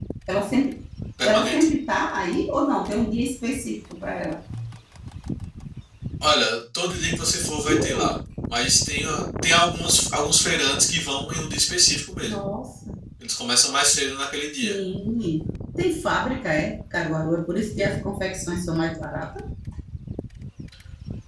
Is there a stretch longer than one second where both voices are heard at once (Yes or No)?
No